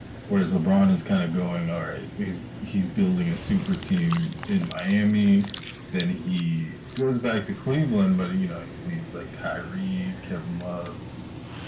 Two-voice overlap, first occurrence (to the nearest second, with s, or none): none